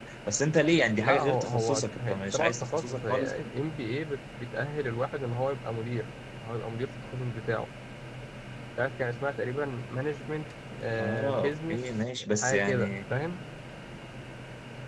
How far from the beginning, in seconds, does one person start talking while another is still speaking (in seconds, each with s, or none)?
1.0 s